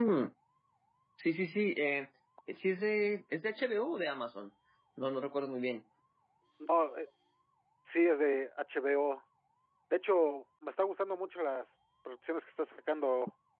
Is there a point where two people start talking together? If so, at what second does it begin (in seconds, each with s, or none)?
none